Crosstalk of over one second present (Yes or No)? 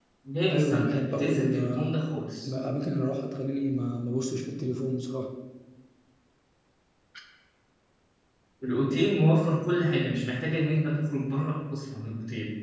Yes